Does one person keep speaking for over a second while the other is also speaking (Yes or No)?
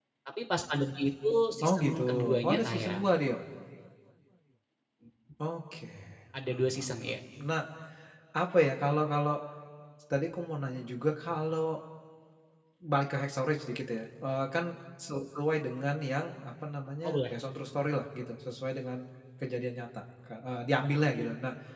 Yes